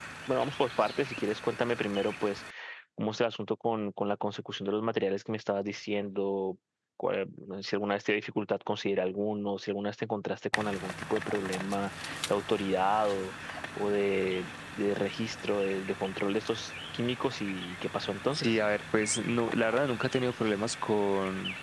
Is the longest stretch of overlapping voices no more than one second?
Yes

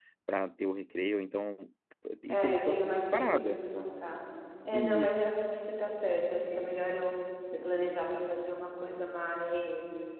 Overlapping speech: Yes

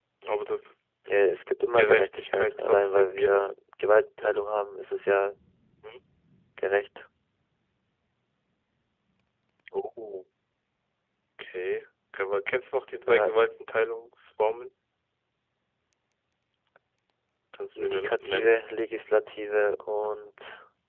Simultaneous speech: Yes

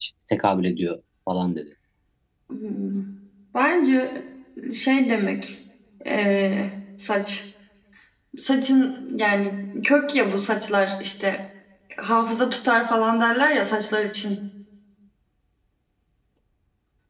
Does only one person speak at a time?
Yes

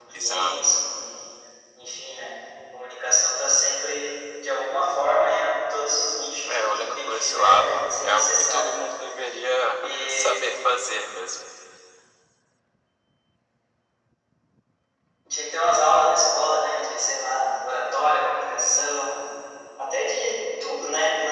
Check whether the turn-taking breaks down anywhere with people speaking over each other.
Yes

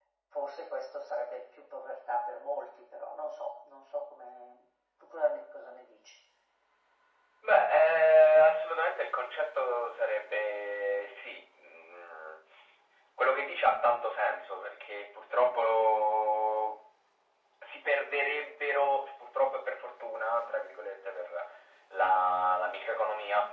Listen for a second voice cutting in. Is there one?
No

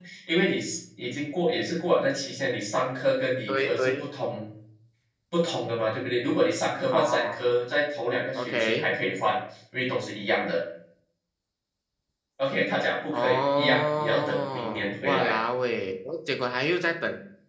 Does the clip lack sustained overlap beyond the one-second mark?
No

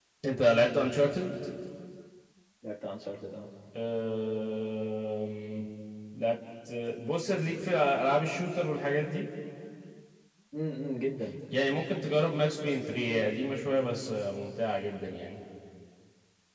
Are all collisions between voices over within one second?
Yes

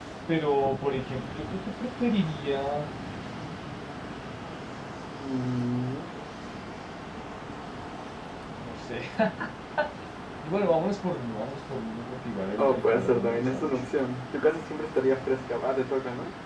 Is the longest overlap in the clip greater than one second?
Yes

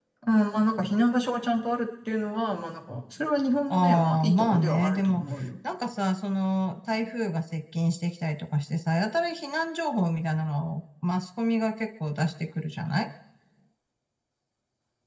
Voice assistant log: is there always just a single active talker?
No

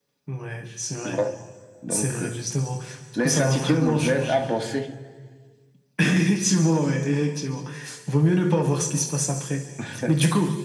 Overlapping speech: Yes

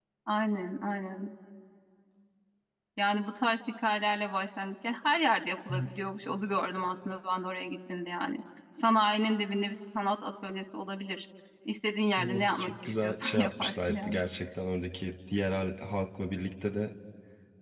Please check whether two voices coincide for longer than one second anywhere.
Yes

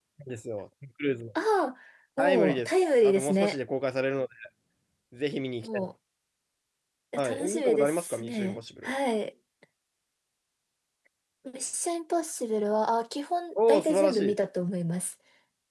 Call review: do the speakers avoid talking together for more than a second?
No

